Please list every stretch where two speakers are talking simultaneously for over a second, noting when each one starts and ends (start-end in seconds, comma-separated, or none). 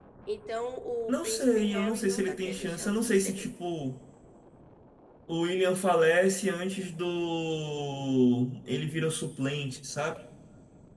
1.1-3.5